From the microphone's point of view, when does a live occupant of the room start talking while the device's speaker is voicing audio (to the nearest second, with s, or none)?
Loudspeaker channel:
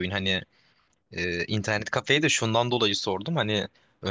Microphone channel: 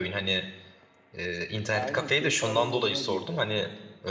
2 s